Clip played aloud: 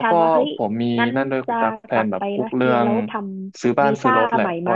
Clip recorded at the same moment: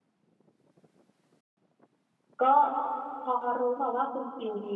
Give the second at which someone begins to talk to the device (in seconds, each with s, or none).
2.4 s